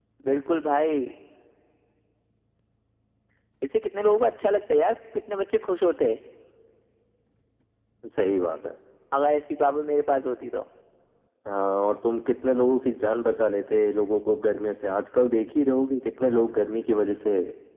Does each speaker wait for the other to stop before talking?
Yes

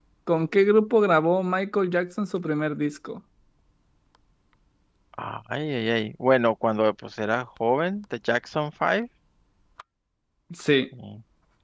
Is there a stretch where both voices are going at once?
No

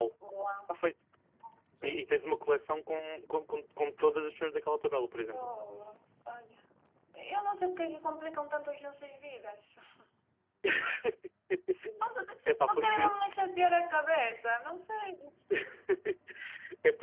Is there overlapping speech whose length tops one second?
No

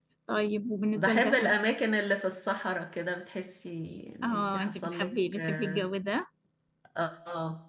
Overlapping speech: Yes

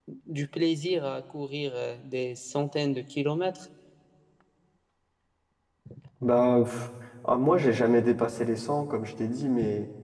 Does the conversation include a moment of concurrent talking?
No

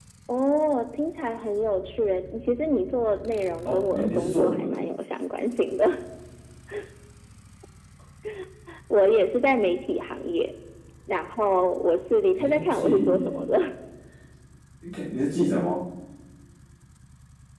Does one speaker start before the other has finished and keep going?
Yes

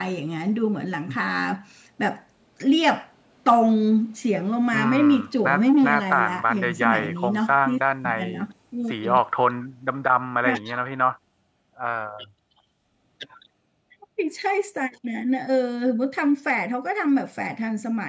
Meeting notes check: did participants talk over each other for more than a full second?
Yes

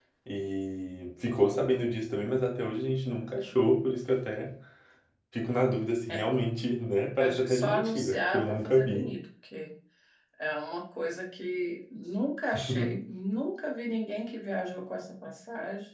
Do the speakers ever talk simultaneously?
Yes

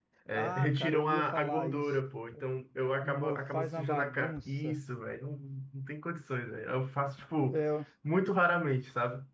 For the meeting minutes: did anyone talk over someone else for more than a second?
Yes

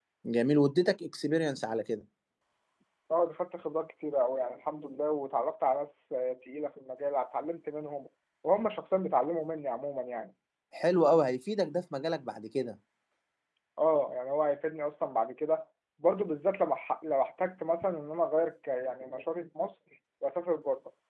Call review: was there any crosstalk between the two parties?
No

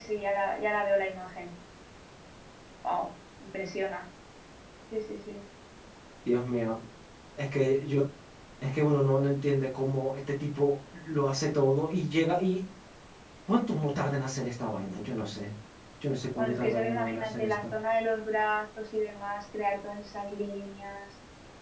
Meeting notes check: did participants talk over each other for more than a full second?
Yes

